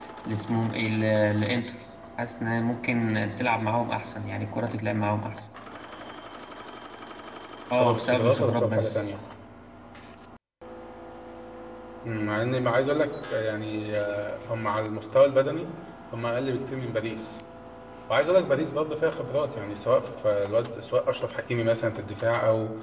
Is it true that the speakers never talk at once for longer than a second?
No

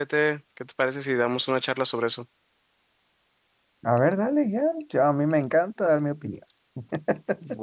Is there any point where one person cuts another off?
No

